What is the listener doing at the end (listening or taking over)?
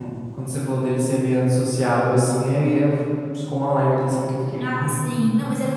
taking over